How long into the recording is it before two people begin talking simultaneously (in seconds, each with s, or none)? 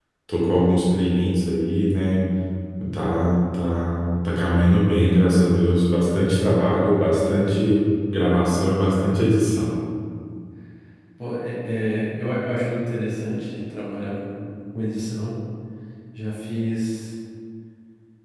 none